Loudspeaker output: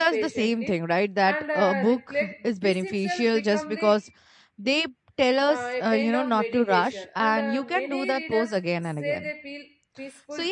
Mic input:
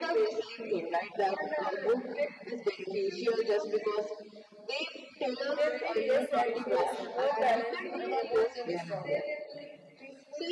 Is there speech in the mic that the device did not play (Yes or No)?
Yes